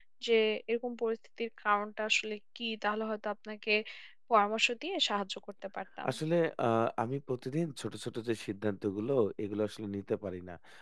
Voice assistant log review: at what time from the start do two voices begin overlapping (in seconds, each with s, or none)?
none